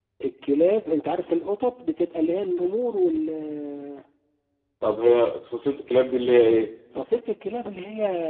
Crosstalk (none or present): none